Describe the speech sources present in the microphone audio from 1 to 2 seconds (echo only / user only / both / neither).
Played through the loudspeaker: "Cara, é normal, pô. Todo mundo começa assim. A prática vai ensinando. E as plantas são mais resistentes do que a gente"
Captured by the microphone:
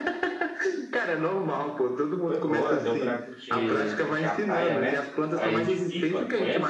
echo only